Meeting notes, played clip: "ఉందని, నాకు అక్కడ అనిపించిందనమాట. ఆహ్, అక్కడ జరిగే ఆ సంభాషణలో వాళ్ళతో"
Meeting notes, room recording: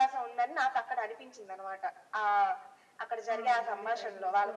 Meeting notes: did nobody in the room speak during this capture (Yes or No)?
No